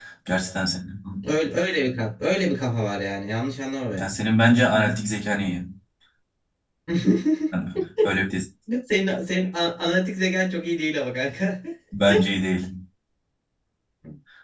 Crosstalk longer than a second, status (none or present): none